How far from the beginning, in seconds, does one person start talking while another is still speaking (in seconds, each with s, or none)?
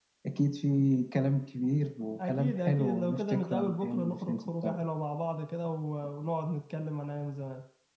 2.2 s